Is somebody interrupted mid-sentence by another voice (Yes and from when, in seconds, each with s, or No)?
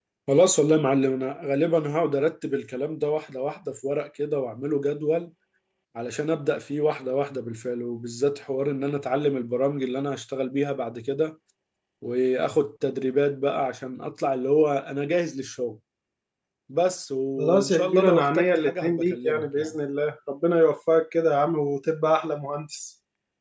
Yes, from 17.4 s